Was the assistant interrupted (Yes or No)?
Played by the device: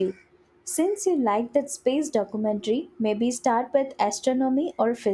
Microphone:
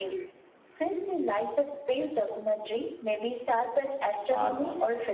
Yes